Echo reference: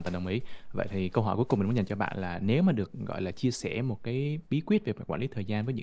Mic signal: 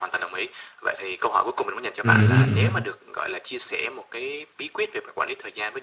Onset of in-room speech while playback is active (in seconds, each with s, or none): 2.0 s